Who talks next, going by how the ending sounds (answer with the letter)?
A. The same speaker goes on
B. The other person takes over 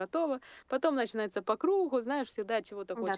B